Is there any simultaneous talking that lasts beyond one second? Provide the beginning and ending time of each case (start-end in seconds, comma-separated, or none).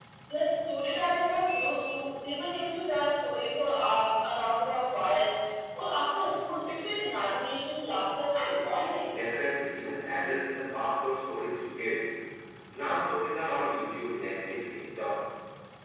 none